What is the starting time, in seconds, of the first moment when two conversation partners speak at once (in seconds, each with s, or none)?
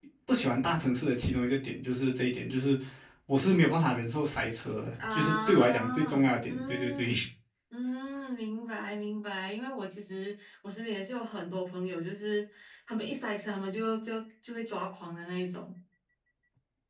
5.0 s